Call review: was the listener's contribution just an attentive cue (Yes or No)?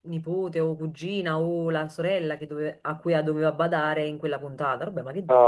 No